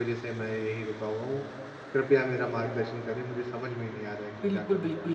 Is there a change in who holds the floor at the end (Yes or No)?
Yes